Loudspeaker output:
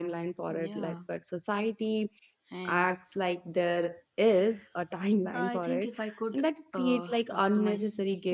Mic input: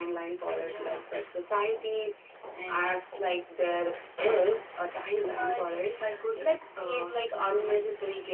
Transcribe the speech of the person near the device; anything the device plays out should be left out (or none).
none